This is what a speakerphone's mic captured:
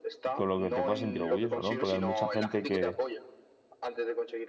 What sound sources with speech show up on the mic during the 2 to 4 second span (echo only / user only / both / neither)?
both